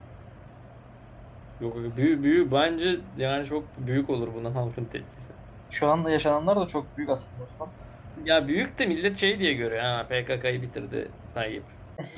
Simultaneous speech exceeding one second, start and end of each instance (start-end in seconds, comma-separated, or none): none